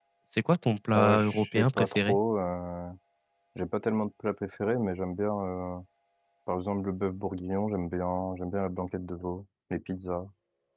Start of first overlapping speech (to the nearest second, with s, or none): 1 s